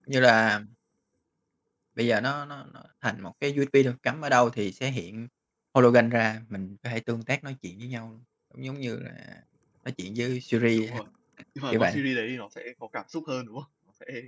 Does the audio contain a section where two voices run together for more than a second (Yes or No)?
No